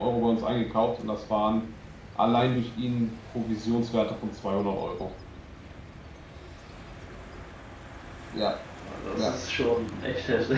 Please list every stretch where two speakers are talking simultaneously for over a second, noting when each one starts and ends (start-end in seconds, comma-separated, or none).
none